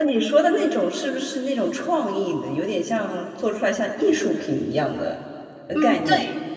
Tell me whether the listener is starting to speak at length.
Yes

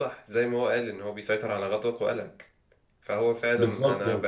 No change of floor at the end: Yes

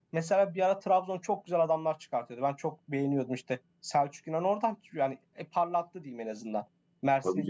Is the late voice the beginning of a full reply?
No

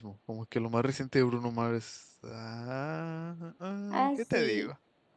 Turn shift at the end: Yes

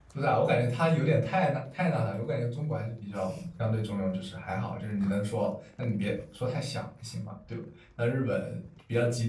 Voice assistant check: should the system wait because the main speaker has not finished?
Yes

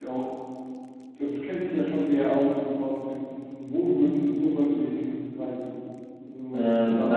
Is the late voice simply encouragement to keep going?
No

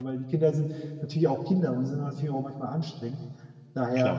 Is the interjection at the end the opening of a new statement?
No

